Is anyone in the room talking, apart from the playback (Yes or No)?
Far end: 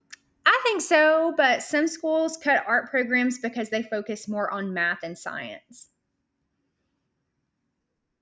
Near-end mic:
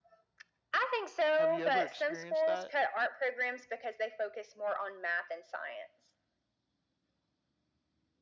Yes